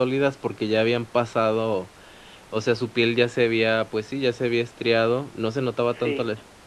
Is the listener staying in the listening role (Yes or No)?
Yes